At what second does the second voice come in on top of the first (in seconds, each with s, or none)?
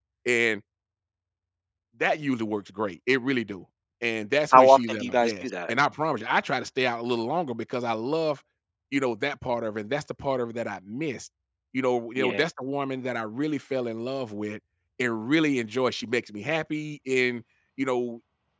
4.5 s